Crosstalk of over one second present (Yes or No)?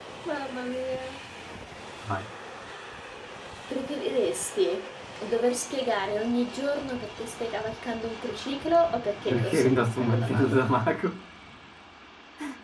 Yes